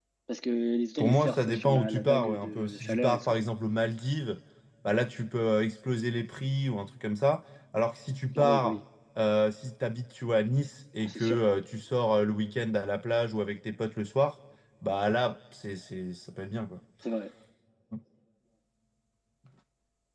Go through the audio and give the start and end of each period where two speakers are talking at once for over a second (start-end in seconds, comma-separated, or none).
1.0-3.3